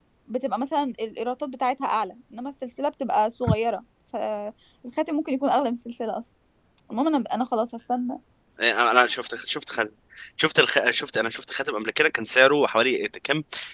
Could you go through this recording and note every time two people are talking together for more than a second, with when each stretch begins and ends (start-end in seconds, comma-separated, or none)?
none